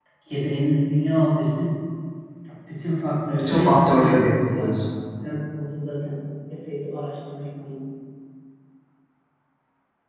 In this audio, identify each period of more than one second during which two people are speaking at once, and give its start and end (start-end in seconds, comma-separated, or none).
3.4-4.7